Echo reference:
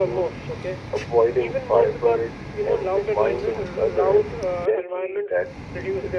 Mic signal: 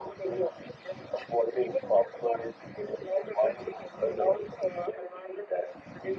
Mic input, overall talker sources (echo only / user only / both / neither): echo only